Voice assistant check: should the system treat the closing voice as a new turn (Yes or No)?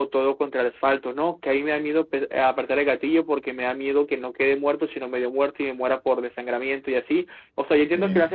No